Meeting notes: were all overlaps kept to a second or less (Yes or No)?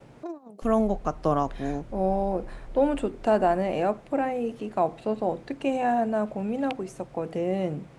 Yes